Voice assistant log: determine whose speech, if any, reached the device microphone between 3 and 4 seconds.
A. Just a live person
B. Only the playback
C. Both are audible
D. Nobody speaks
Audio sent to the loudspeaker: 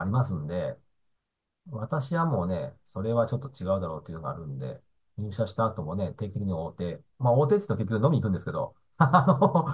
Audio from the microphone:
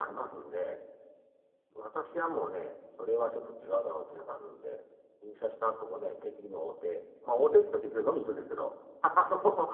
B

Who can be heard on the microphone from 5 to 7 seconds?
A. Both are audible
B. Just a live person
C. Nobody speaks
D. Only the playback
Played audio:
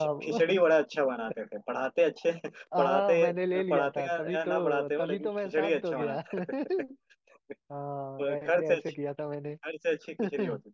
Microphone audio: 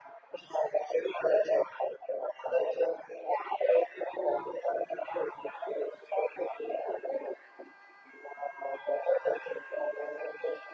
D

